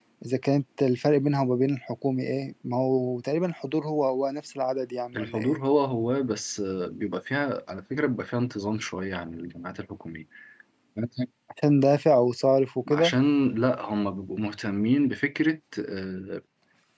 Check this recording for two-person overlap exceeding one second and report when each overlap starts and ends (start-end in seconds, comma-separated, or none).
none